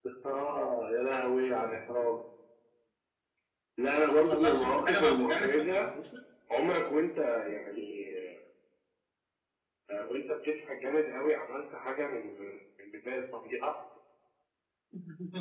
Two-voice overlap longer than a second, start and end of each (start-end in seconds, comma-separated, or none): 4.1-5.8